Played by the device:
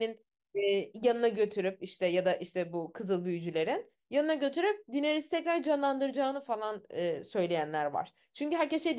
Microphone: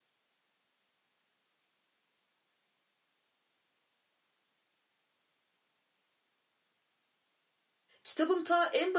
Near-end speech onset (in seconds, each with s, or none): 8.0 s